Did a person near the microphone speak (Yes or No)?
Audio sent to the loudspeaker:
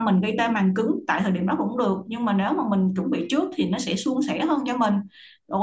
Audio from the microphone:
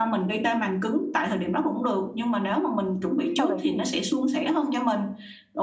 Yes